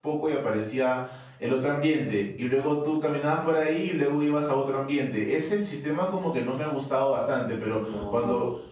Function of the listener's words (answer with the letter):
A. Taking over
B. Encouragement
B